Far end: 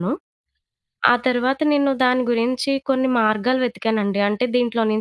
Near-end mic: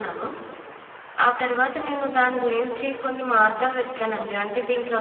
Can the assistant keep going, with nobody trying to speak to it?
Yes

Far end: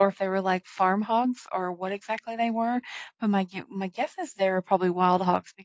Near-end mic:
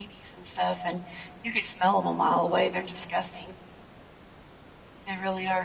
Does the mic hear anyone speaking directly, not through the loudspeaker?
Yes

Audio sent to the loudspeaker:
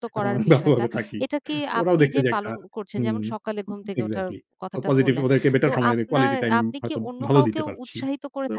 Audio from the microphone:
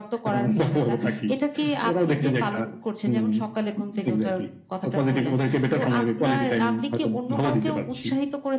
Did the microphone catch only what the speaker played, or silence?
Yes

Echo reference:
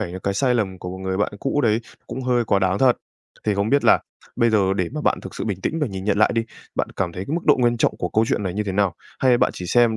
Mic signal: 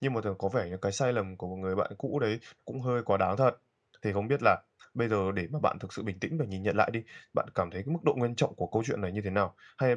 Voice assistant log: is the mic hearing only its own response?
Yes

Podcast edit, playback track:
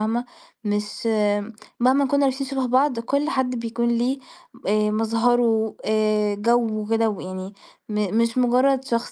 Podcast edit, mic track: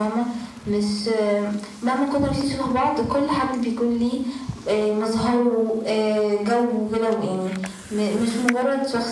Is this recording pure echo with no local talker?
Yes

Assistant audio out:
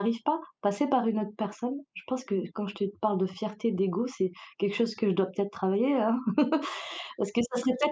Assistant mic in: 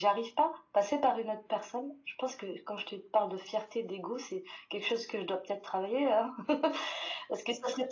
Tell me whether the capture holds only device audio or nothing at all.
Yes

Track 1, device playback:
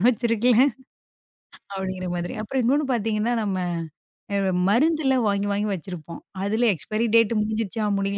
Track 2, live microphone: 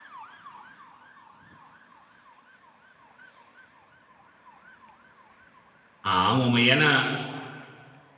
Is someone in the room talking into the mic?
Yes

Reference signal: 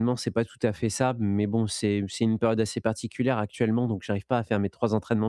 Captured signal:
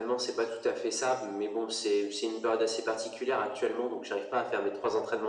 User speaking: No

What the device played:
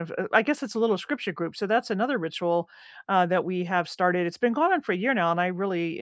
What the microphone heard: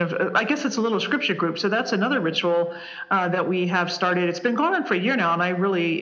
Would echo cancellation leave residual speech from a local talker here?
No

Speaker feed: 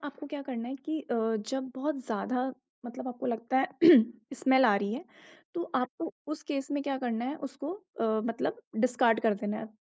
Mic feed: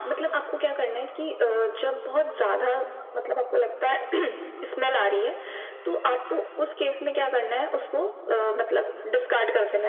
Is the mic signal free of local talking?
Yes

